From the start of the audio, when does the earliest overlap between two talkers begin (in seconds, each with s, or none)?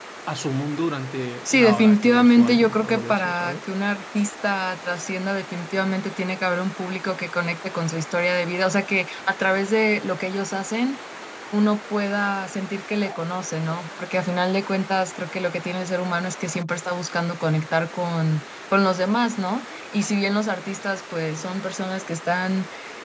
1.4 s